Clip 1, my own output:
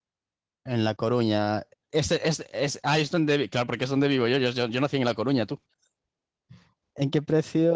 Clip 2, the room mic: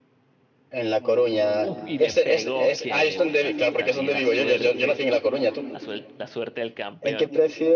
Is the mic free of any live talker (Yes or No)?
No